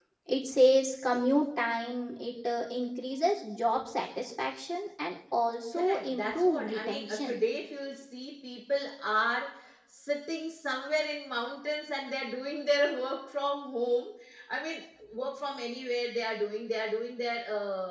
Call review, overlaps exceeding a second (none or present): present